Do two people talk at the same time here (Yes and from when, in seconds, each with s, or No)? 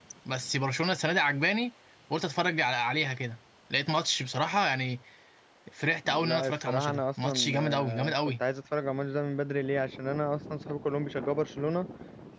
Yes, from 6.1 s